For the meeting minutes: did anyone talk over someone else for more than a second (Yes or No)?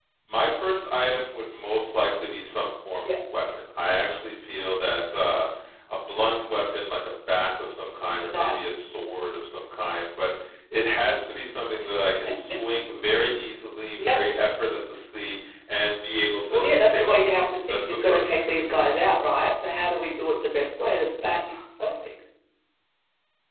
Yes